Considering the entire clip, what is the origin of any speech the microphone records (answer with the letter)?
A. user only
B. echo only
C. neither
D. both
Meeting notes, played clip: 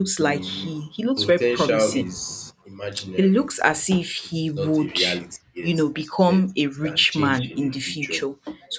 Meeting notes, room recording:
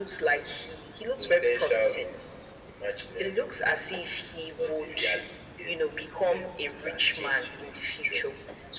B